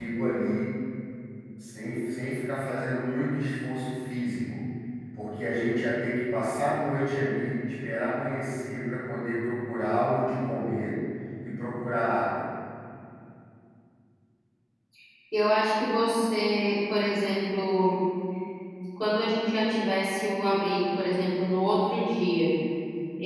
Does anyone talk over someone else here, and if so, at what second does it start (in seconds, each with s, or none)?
none